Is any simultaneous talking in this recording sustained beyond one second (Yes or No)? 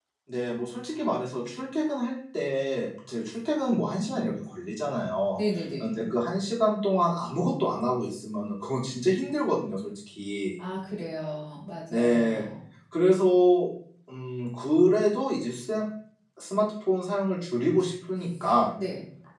No